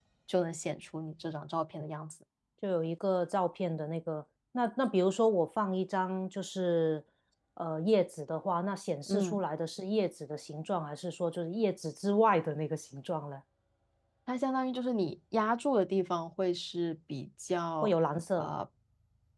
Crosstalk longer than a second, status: none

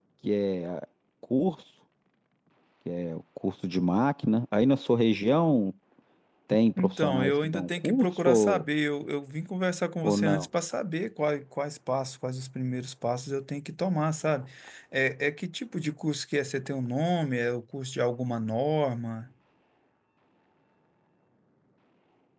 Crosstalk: present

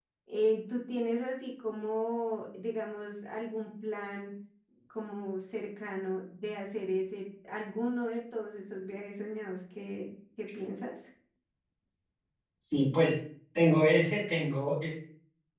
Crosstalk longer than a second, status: none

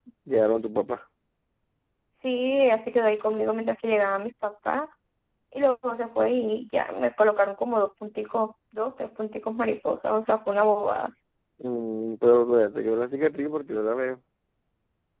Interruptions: none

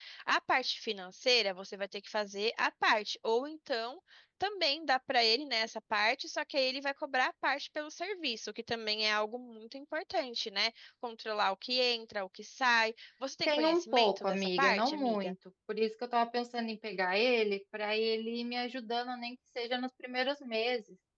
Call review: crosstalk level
present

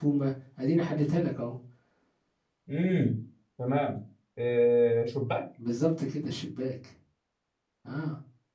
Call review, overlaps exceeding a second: none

